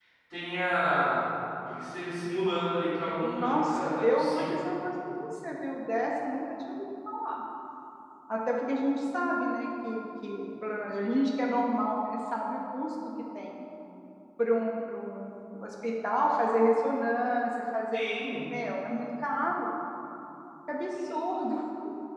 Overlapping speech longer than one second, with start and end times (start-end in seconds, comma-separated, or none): 3.2-4.6